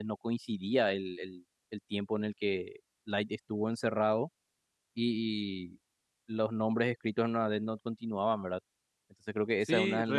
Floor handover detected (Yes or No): Yes